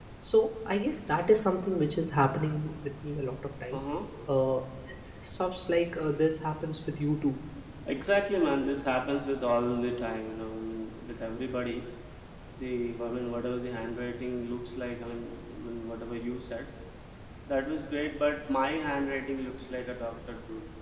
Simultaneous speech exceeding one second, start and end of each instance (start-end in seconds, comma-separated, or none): none